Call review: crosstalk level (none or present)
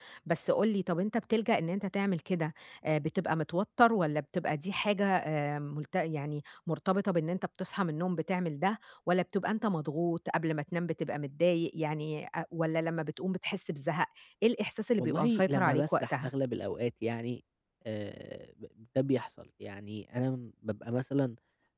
present